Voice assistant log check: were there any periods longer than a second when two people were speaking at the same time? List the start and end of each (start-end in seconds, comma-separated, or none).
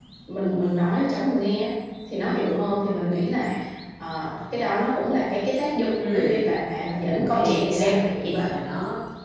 7.1-8.4